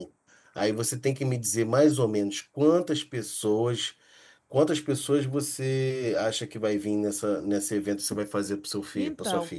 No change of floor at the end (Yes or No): No